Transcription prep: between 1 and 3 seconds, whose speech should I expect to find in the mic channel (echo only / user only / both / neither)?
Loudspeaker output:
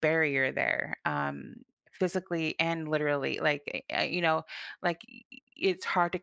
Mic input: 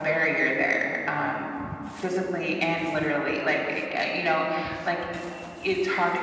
echo only